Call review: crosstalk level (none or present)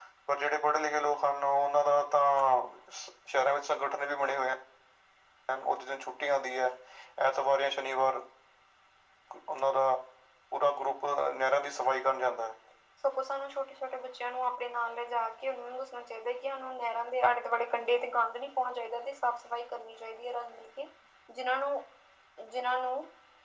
none